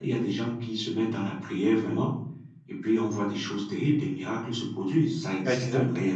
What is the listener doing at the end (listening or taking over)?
taking over